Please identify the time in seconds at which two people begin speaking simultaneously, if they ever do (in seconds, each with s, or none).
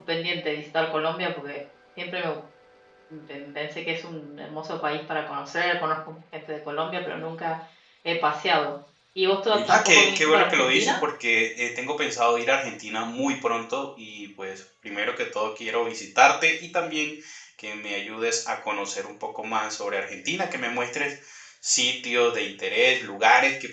9.5 s